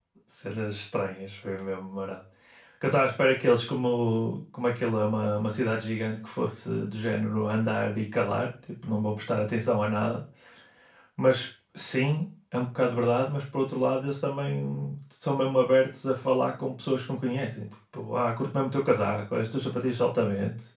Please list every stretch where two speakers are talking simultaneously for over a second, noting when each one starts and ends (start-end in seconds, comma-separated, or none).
none